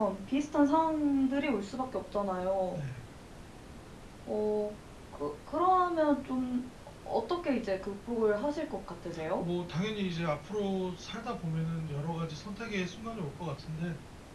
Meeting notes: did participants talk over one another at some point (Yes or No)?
No